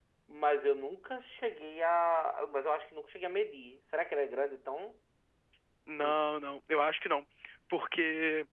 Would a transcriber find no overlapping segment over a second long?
Yes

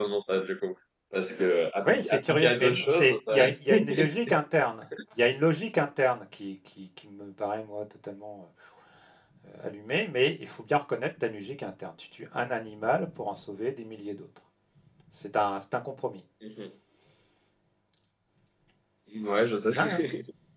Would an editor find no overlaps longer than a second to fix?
No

